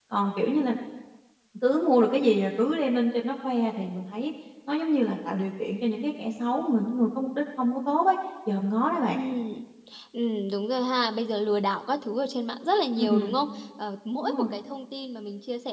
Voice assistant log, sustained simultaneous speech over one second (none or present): none